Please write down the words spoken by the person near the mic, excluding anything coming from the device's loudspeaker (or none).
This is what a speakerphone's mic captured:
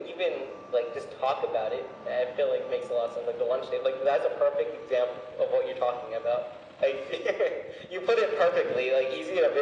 none